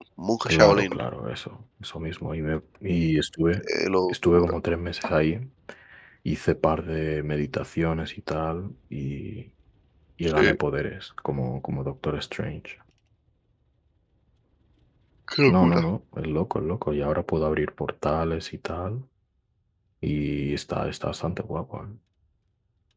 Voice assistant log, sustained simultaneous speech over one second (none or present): none